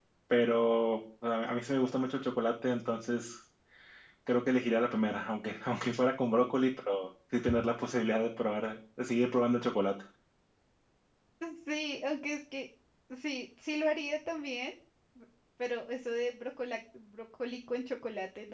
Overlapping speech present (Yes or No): No